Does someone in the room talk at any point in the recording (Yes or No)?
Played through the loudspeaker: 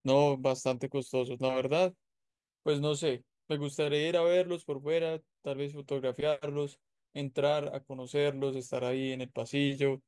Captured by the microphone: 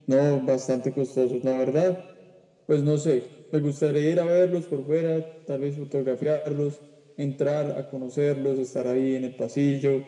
No